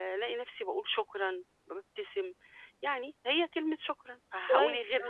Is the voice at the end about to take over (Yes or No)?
Yes